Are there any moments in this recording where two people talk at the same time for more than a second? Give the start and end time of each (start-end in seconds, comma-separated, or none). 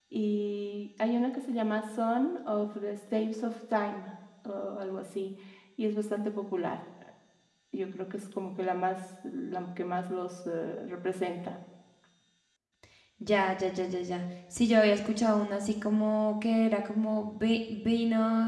none